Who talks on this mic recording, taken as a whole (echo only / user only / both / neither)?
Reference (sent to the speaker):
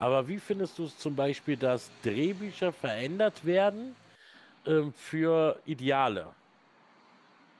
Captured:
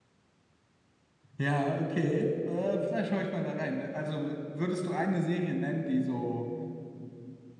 user only